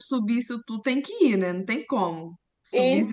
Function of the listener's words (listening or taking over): taking over